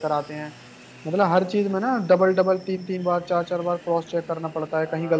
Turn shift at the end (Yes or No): Yes